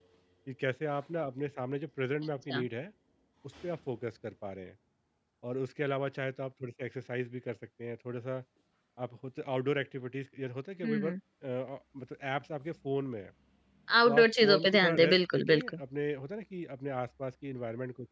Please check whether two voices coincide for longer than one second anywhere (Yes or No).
Yes